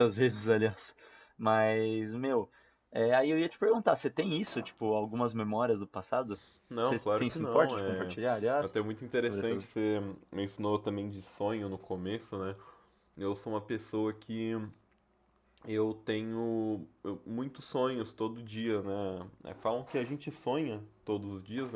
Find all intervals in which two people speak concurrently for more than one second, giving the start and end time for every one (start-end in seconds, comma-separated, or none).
6.9-8.2